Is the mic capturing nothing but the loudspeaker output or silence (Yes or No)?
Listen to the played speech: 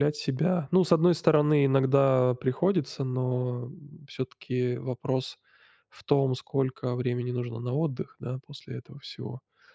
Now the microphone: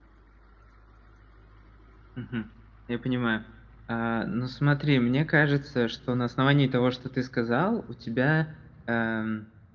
No